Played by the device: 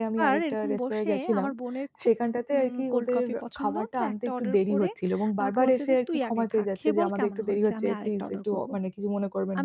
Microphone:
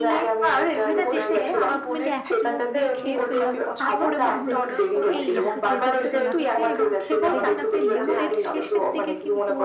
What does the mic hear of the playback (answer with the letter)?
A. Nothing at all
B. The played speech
B